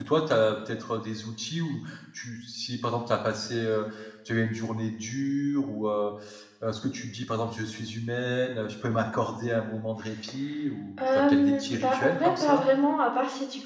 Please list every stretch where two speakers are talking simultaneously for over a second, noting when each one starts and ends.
11.1-12.6

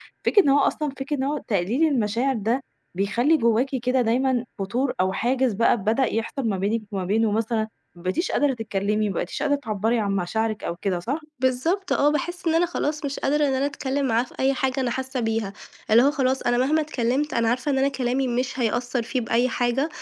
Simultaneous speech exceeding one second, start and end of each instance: none

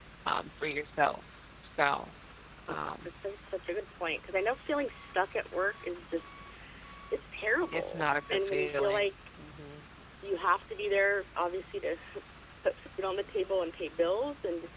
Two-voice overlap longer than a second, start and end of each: 7.7-9.0

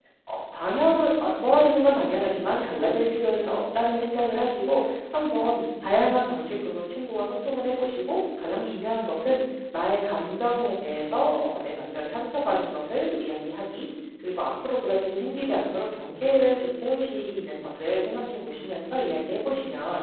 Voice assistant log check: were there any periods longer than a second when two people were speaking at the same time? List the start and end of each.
none

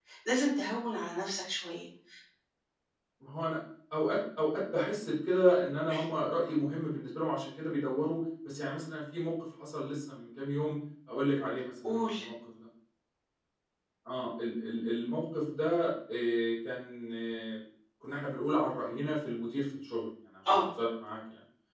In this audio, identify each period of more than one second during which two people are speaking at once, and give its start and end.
none

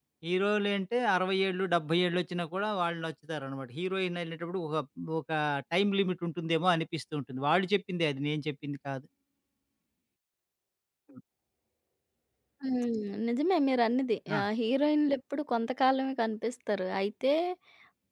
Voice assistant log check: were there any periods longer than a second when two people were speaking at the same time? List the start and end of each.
none

